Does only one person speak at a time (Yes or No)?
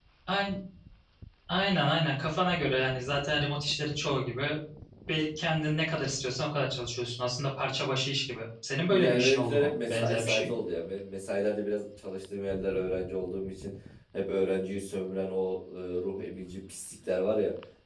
No